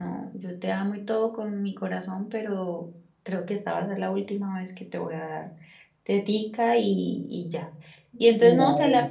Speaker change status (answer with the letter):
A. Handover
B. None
B